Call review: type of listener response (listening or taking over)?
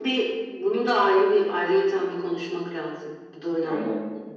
taking over